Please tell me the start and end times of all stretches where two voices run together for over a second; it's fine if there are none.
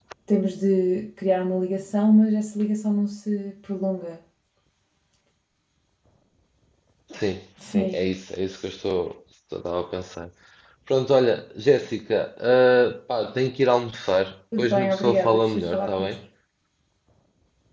14.6-16.1

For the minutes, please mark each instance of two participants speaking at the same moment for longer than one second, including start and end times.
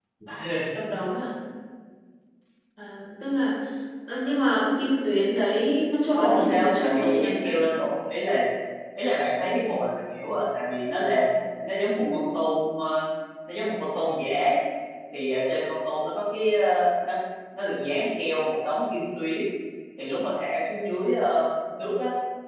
6.1-7.5

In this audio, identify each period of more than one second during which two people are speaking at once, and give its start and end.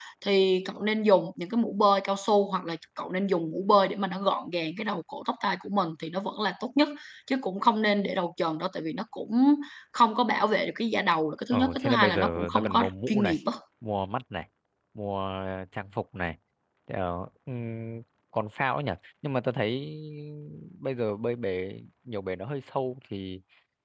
11.5-13.4

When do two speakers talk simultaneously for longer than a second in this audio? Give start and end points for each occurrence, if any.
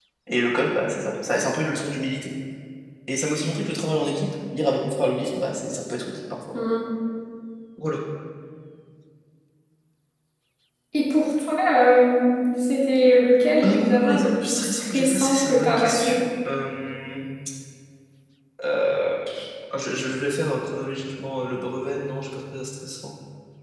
13.6-16.1

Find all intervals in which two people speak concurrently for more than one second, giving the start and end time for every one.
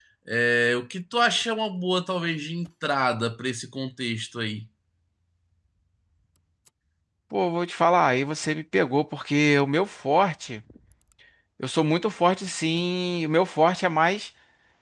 none

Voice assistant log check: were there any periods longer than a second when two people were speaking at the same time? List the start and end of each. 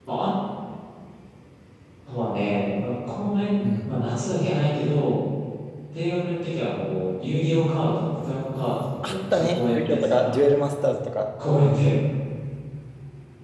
9.0-10.3

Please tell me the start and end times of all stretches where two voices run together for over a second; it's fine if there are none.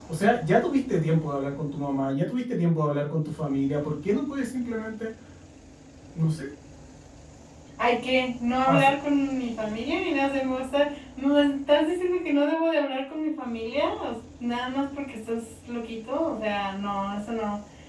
none

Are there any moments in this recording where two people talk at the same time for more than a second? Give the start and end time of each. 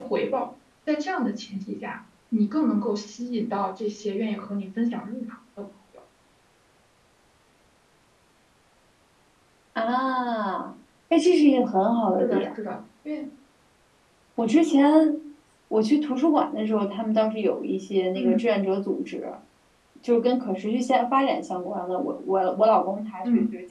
none

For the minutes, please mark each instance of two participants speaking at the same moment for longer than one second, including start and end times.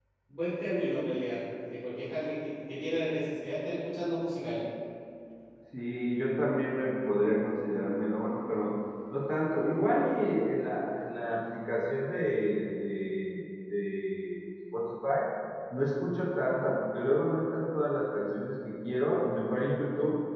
none

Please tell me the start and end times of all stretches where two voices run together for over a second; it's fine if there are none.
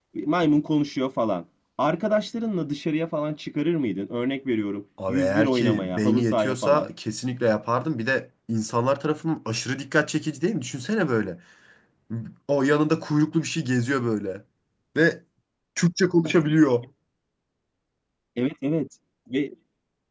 5.1-6.9

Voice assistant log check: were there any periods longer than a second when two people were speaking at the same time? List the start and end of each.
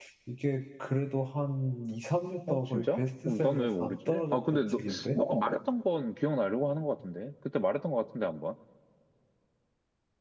2.5-5.2

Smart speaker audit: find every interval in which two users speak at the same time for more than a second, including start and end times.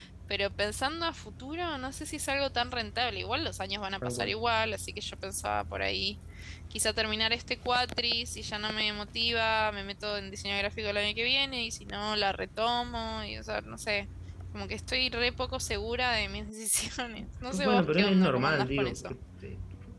17.5-19.0

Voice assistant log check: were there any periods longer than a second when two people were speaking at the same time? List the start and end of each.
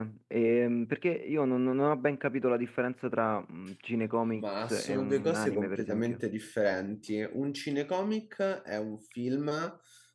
4.3-6.2

